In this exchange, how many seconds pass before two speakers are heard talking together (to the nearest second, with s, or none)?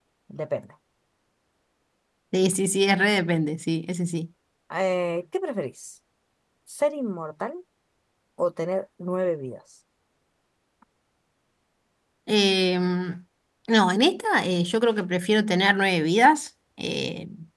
none